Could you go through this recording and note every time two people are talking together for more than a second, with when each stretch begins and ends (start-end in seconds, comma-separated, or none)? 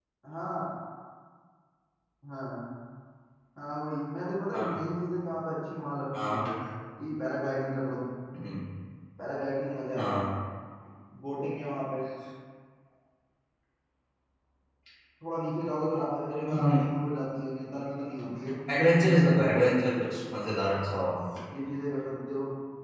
18.8-20.0